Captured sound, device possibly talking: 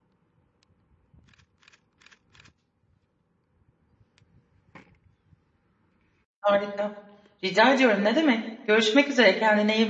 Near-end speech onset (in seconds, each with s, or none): 6.4 s